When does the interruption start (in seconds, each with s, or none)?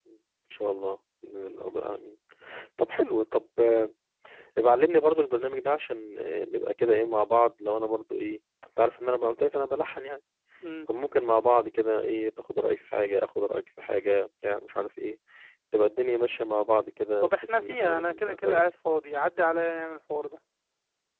17.2 s